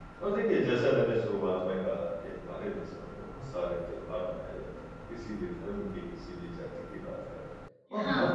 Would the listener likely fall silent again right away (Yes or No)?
Yes